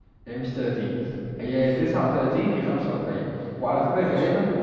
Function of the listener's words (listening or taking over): listening